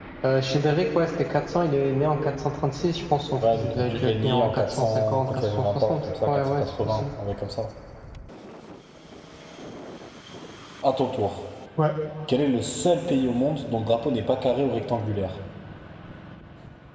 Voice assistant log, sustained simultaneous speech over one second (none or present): present